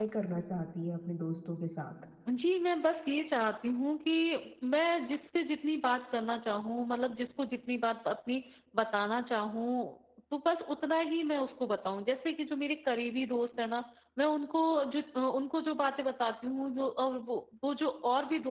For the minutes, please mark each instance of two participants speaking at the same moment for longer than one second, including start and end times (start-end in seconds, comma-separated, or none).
none